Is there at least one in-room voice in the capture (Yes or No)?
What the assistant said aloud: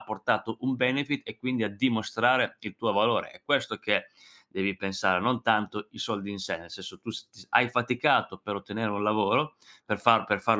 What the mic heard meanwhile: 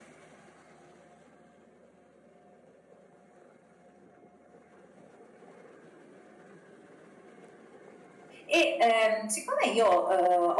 Yes